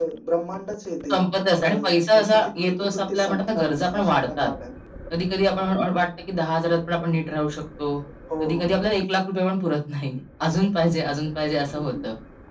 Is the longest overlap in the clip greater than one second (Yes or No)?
Yes